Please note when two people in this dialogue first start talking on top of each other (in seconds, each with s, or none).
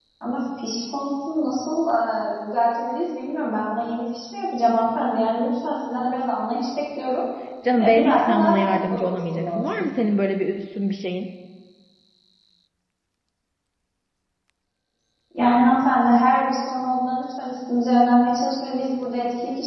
7.8 s